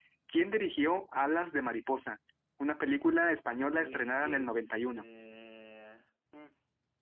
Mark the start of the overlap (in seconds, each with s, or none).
3.8 s